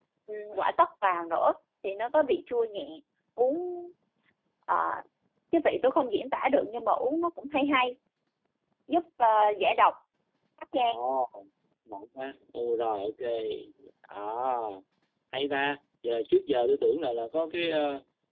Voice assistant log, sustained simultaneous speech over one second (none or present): none